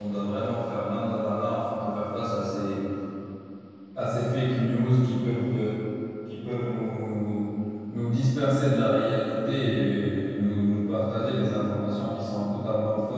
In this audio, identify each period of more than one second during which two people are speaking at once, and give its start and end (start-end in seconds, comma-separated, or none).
none